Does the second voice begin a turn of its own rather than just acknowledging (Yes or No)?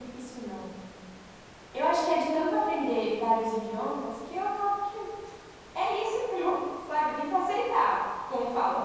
No